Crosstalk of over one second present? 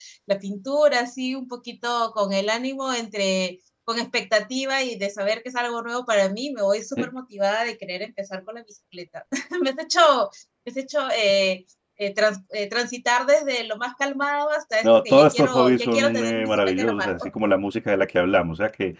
Yes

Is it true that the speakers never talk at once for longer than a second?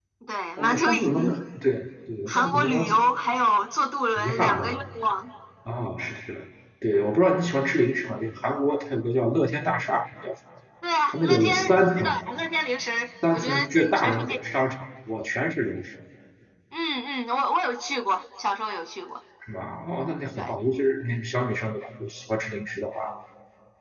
No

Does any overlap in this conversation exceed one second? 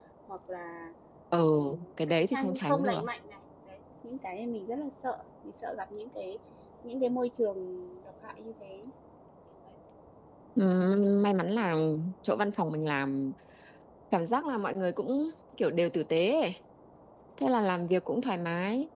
Yes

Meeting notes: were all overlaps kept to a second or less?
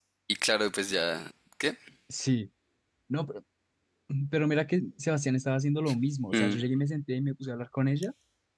Yes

